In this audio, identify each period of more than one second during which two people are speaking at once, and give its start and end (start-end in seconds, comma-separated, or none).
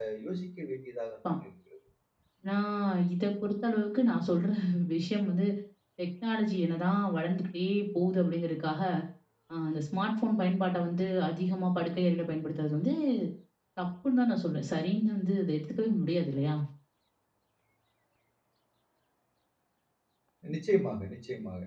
none